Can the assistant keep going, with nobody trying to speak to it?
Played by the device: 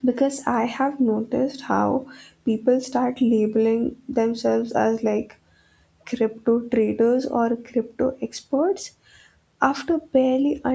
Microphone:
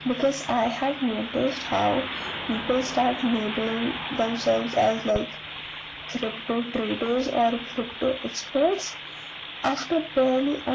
Yes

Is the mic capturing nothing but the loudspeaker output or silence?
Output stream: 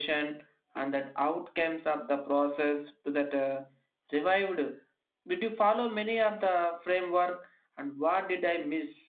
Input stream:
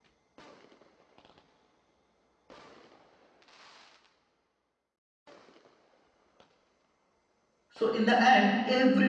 No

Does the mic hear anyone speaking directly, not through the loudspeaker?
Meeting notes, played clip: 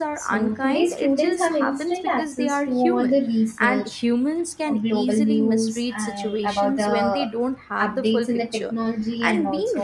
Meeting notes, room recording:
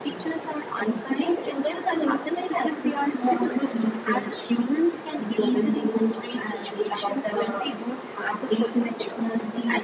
No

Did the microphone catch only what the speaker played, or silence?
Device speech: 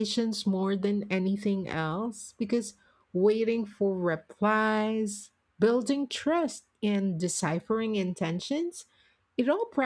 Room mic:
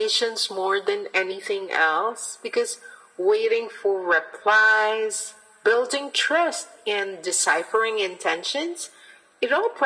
Yes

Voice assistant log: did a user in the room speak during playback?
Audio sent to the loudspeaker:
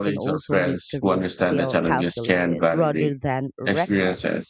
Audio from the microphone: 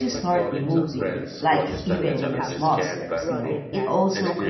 Yes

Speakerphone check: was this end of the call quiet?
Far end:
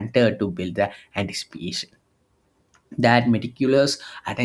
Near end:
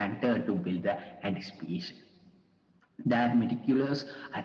Yes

